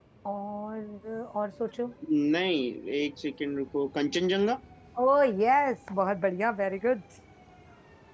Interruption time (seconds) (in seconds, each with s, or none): none